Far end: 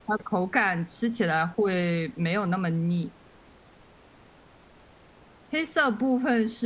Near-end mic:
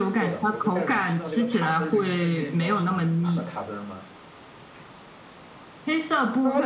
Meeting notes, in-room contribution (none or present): present